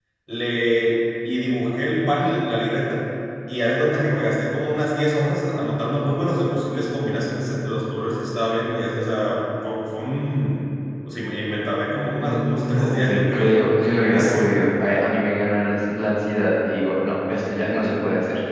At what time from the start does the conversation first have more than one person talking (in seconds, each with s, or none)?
12.2 s